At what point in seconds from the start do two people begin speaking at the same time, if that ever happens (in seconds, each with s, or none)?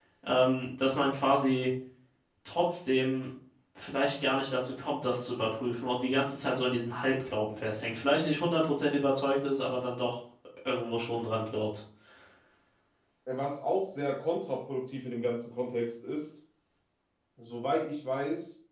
none